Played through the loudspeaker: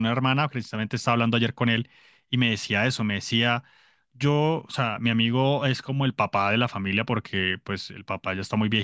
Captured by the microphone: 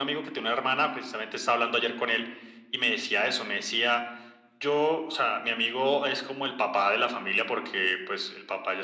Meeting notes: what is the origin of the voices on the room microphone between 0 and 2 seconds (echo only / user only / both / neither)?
echo only